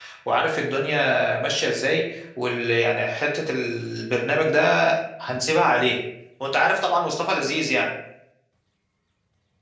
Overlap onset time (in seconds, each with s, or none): none